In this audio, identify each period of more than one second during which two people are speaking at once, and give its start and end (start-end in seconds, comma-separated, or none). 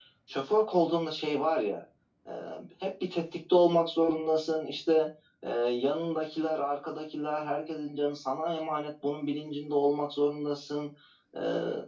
none